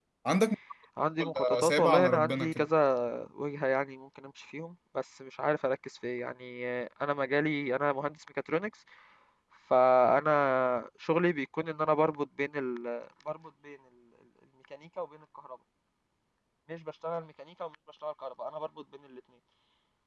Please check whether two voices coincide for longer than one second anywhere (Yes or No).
Yes